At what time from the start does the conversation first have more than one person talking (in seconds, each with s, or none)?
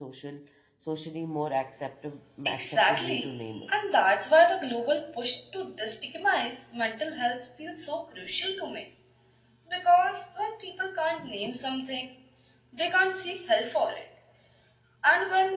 2.5 s